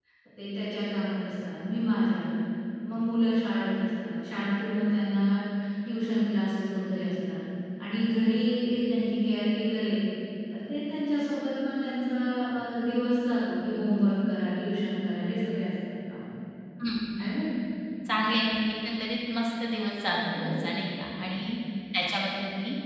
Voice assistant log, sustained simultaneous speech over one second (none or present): none